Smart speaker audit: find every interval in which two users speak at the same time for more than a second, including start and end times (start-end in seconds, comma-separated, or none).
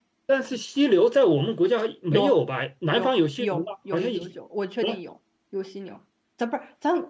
2.9-4.3